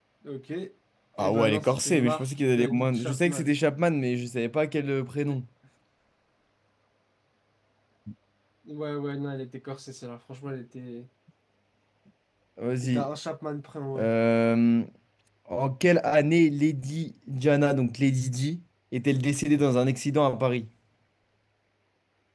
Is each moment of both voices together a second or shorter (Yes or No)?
No